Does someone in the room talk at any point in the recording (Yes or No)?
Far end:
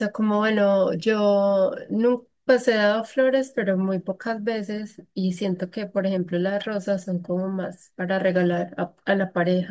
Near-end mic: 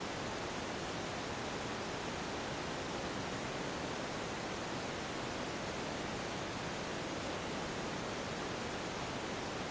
No